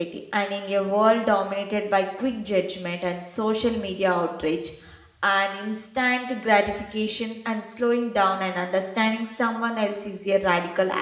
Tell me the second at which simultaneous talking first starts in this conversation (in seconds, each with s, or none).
none